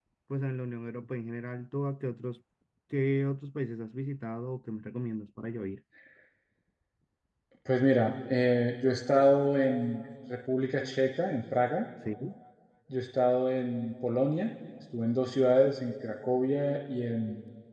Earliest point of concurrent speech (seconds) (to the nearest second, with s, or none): none